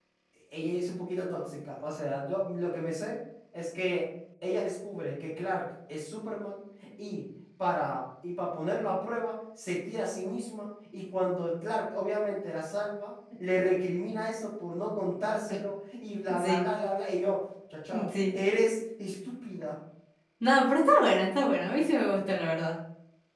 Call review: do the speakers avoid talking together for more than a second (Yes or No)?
Yes